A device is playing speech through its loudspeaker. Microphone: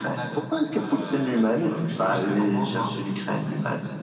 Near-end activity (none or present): present